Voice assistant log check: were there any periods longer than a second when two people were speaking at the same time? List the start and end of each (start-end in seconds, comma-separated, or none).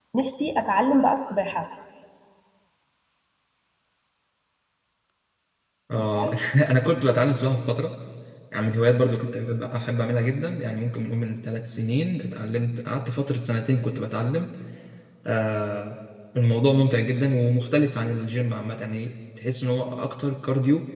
none